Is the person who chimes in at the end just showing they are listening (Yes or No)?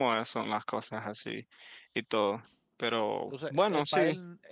No